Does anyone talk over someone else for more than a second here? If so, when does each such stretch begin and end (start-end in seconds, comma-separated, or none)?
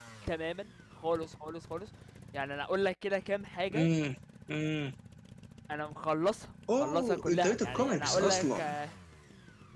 6.7-8.6